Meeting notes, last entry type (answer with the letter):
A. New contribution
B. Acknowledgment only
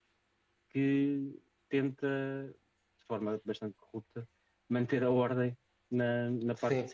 A